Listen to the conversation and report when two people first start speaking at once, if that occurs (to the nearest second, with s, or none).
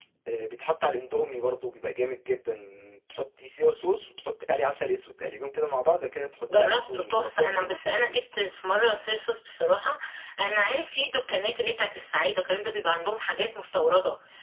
7 s